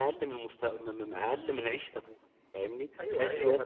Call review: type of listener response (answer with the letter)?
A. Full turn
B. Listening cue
A